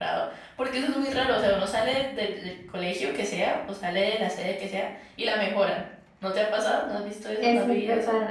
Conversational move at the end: taking over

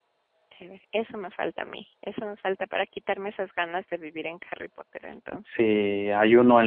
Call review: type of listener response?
taking over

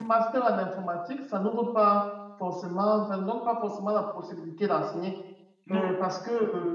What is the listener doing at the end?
listening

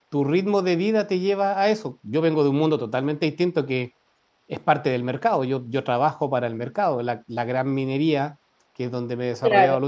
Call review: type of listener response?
listening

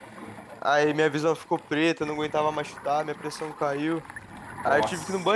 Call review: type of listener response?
listening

